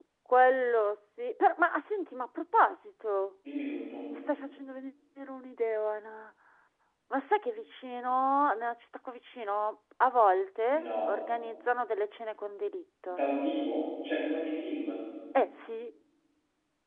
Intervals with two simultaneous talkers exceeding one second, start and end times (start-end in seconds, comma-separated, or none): none